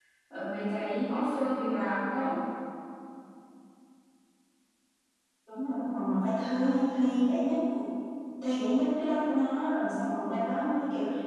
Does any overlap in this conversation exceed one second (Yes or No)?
No